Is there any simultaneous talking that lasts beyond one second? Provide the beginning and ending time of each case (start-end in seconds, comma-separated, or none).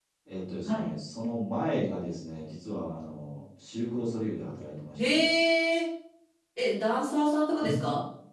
none